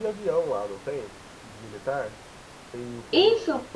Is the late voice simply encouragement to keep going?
No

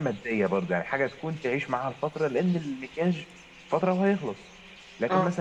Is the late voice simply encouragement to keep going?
Yes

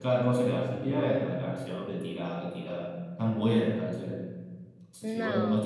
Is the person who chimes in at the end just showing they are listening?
Yes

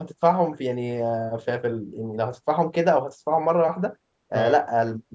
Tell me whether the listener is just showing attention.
Yes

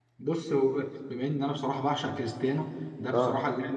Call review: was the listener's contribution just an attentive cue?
Yes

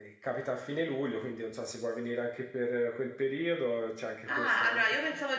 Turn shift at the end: Yes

